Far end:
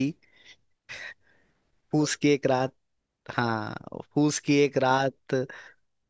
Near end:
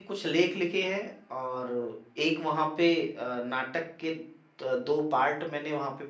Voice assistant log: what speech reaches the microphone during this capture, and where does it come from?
user only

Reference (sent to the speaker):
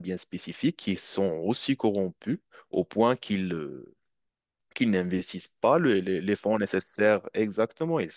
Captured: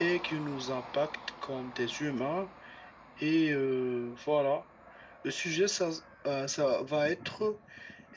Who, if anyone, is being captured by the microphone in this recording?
user only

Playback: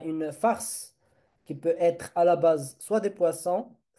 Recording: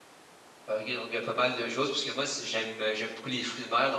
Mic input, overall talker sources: user only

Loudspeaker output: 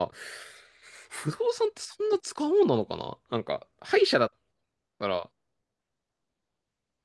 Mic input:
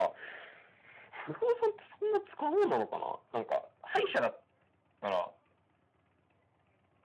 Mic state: echo only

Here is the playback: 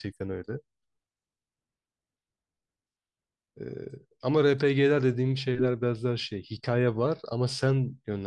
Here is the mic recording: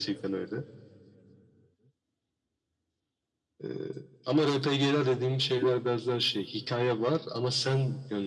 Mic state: echo only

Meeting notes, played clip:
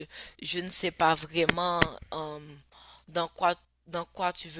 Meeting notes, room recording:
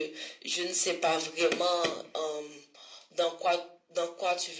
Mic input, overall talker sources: echo only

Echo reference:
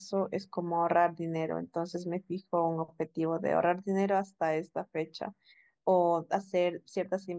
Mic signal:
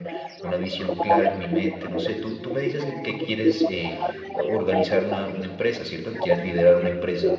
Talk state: both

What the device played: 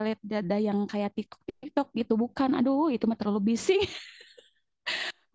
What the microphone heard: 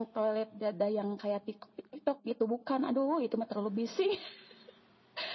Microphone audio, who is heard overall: echo only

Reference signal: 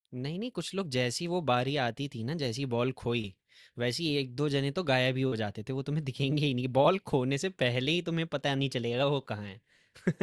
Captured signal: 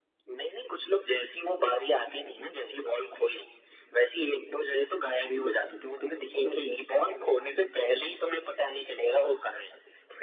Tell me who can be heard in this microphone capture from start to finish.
echo only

